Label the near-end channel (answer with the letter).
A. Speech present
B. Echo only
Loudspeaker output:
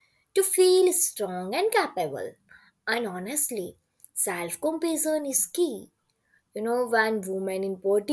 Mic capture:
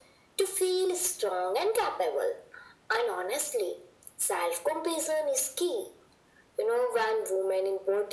B